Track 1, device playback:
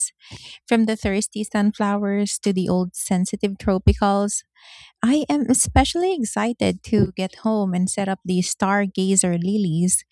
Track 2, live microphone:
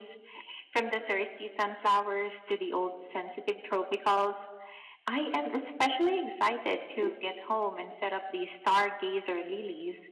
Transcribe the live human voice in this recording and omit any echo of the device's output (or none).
none